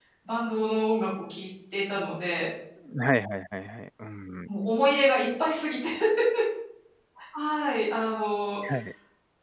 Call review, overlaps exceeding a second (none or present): none